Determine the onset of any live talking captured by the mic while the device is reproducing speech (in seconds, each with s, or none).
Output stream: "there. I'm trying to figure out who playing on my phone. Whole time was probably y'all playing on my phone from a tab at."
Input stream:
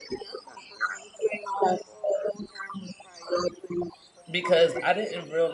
4.3 s